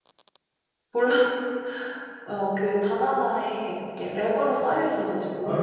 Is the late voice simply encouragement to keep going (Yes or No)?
No